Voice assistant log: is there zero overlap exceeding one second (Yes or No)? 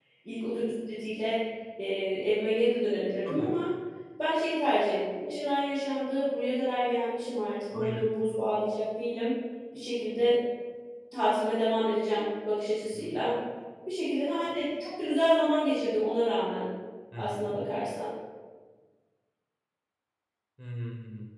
Yes